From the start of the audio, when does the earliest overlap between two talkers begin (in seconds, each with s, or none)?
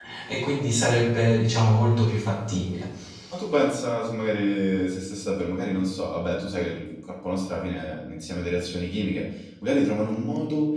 none